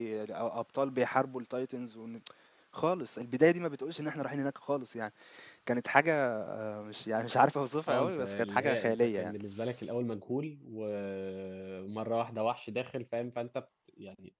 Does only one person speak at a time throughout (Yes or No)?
No